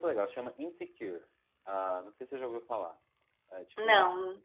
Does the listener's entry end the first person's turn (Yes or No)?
No